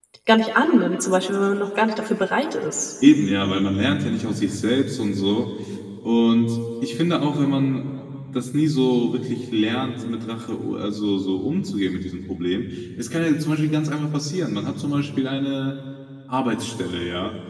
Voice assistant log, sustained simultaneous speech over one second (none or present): none